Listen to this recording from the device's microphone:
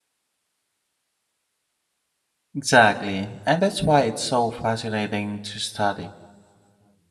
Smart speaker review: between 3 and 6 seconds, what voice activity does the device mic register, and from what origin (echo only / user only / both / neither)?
user only